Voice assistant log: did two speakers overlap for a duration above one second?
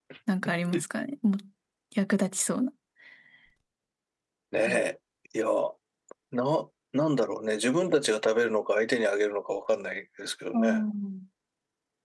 No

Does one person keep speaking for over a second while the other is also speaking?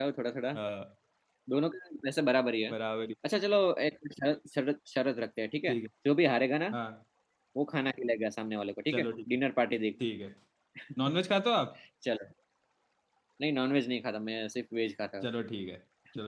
No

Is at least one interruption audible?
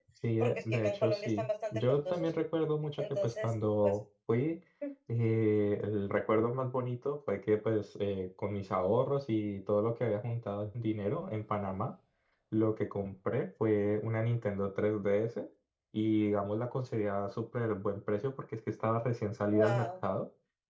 Yes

